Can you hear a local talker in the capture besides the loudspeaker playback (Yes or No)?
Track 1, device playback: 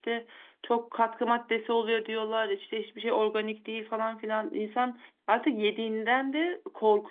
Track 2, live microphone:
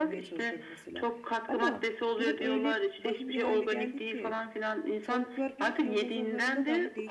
Yes